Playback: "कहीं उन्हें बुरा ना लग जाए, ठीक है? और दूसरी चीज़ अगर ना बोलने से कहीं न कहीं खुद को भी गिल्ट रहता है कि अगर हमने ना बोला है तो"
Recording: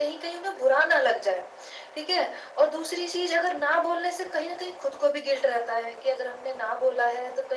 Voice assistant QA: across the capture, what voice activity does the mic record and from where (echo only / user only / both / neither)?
echo only